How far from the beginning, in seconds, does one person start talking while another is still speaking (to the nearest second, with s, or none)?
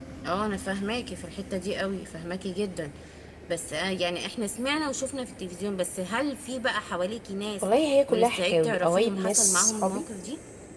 8 s